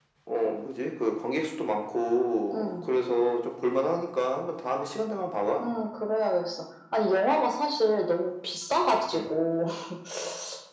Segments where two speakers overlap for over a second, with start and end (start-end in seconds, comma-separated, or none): none